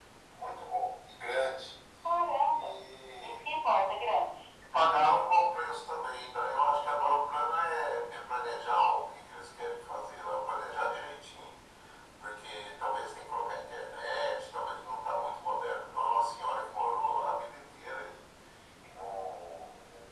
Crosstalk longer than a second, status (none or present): none